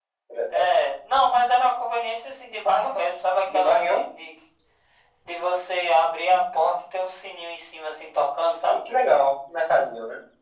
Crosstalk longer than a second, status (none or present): none